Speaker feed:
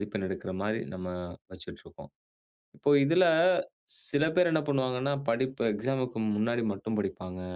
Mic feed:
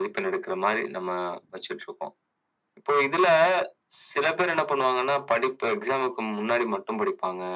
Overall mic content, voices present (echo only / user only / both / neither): echo only